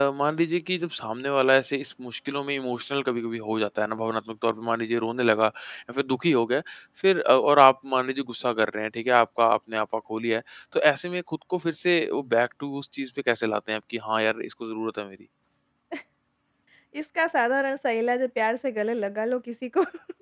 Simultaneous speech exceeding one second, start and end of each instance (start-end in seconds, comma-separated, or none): none